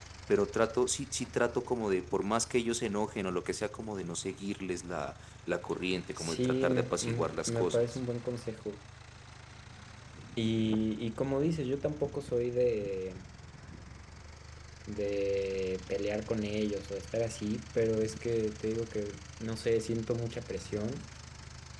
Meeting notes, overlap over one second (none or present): present